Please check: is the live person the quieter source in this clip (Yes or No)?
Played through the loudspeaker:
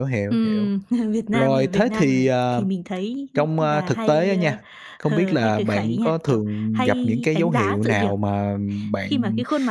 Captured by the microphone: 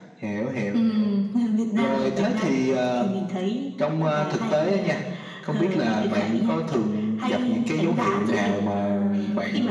Yes